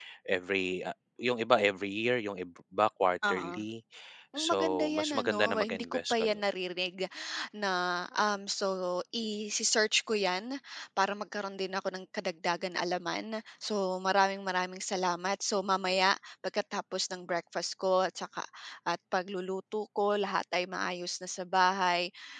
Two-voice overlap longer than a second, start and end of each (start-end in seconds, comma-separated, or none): 4.4-6.4